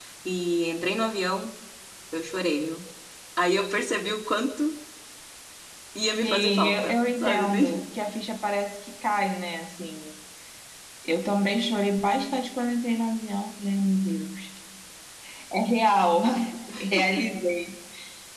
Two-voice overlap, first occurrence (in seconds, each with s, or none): 6.2 s